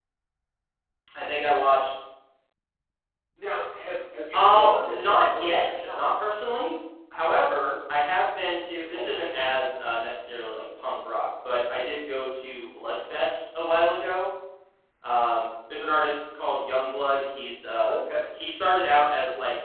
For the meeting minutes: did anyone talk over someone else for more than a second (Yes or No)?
Yes